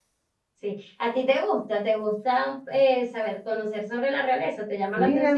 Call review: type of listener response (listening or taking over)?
taking over